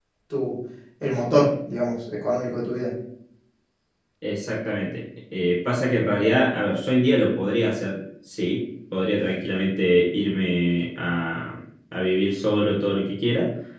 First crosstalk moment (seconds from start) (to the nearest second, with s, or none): none